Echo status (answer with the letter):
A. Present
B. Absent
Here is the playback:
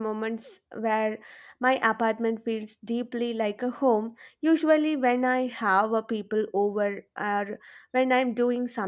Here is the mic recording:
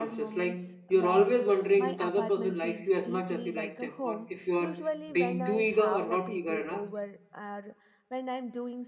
A